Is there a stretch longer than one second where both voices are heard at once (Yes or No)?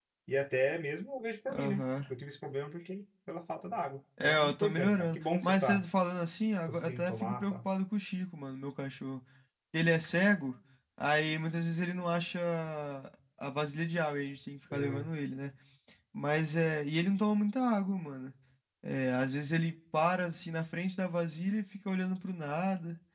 Yes